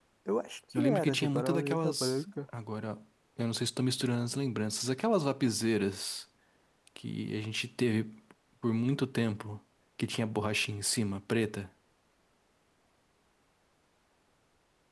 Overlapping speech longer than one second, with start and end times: 0.7-2.2

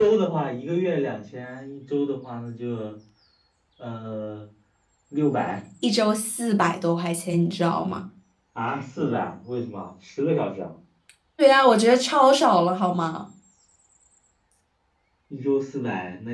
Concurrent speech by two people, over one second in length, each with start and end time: none

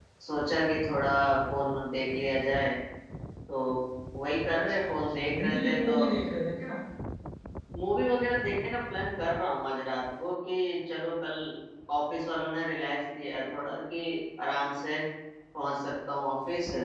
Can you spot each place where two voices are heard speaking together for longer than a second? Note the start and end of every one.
4.4-6.0

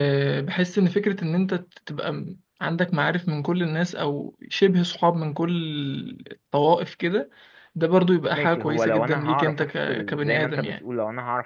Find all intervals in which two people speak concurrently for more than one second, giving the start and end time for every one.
8.3-10.7

